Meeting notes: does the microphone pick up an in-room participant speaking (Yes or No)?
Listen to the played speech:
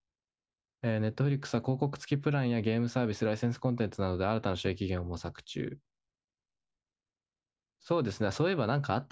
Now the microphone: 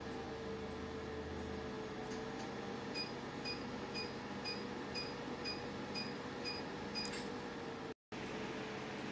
No